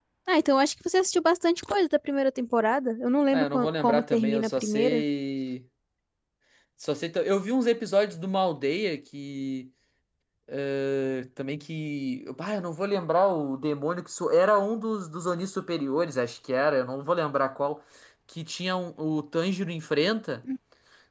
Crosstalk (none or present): present